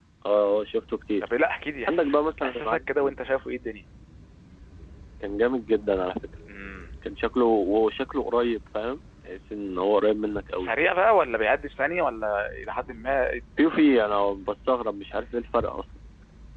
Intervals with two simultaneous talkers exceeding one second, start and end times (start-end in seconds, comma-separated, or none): 1.9-3.2